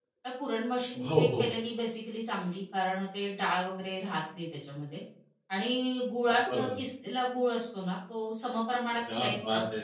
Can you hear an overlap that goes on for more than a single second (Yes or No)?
No